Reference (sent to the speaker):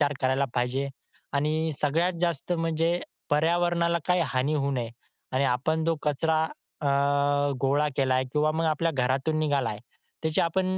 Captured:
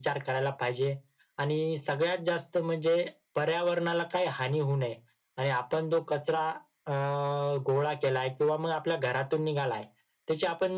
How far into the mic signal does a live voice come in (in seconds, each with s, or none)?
none